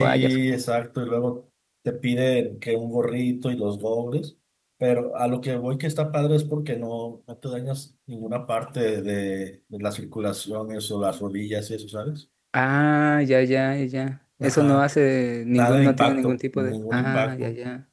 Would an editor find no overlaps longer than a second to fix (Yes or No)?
No